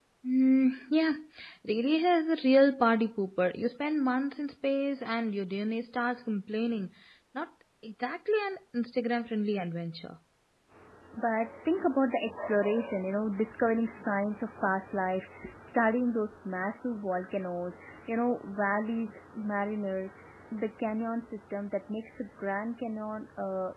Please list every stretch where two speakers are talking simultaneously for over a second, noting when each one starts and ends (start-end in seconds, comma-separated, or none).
none